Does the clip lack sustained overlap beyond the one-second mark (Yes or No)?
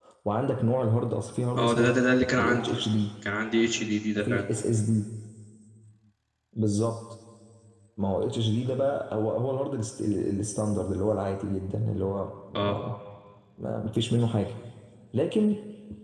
Yes